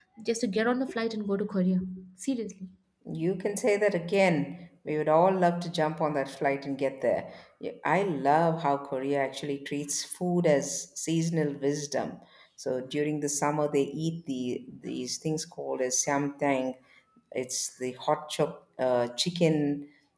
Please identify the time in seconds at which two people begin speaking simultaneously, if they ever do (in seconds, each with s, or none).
none